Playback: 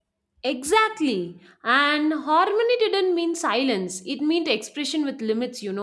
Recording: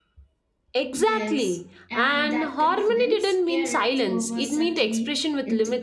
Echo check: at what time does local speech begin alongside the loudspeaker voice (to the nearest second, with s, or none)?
1 s